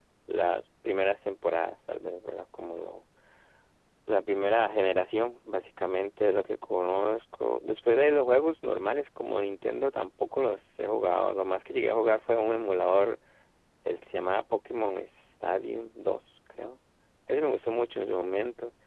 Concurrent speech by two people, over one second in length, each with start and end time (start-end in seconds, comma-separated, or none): none